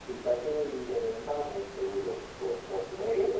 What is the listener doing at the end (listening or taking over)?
listening